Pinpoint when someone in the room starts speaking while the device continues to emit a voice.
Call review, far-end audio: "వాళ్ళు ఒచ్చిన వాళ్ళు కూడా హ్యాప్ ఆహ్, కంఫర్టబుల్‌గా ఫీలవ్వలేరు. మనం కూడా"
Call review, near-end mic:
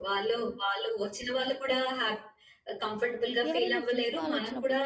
4 s

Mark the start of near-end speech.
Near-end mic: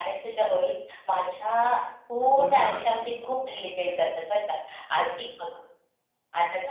2 s

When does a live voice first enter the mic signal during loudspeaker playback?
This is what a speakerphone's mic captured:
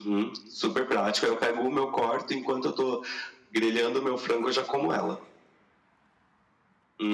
none

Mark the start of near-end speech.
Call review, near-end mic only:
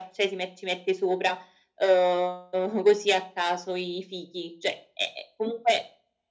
none

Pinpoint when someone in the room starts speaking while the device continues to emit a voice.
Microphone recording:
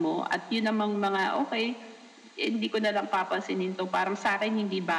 none

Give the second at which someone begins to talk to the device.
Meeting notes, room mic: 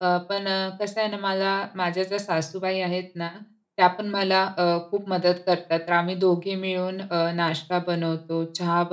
none

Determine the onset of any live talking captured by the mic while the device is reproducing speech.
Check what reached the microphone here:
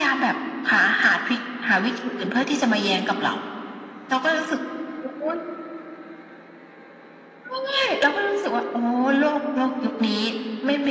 none

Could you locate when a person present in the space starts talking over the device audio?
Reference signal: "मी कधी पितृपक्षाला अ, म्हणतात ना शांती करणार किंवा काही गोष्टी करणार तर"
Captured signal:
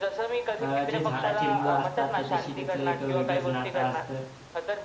1 s

